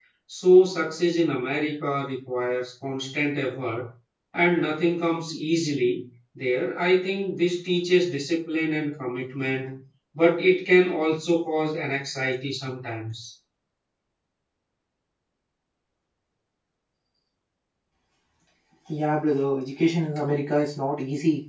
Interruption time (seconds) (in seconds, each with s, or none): none